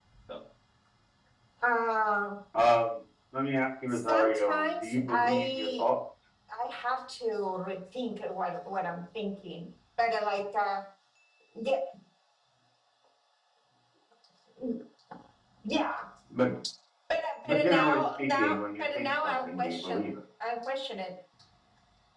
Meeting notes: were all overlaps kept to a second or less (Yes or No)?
No